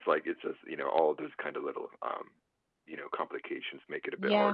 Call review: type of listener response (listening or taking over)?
taking over